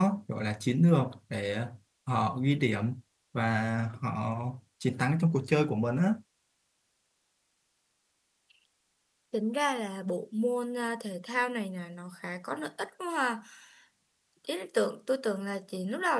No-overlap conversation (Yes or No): Yes